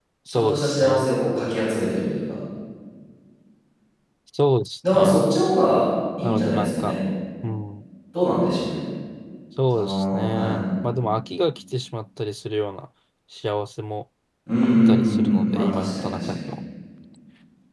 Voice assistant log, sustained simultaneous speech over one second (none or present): present